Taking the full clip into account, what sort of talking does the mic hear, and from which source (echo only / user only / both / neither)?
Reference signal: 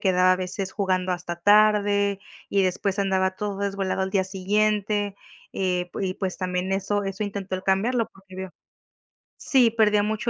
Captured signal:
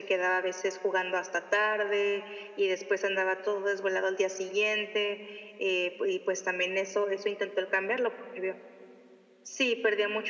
echo only